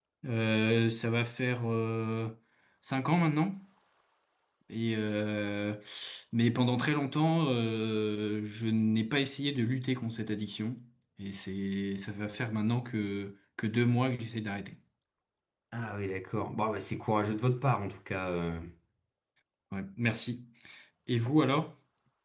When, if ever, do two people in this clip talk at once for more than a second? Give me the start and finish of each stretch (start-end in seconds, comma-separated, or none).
none